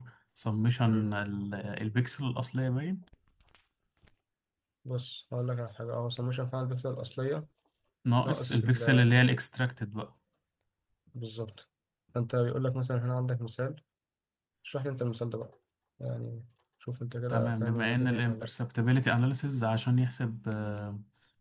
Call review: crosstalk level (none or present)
present